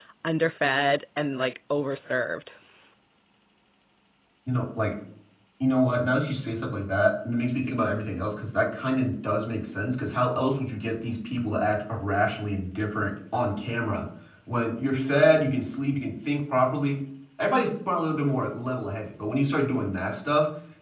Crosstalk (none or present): none